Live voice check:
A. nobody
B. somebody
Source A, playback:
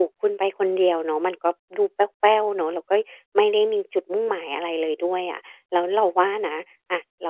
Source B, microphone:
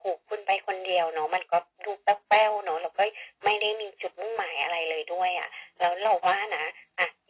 A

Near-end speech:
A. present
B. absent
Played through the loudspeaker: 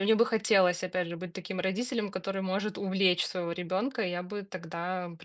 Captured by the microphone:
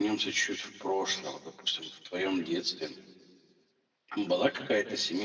A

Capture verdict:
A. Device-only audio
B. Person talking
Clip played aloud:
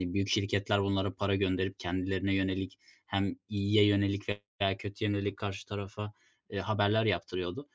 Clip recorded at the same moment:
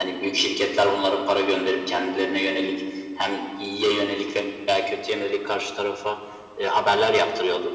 A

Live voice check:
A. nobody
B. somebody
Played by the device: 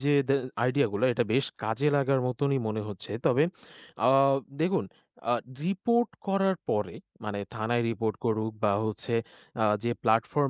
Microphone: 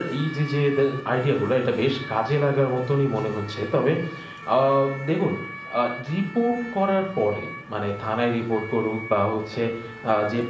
A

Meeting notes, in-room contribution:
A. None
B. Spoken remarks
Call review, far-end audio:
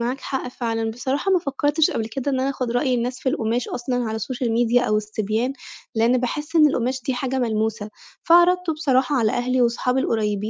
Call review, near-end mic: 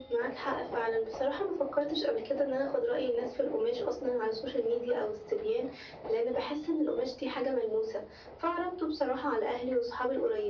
A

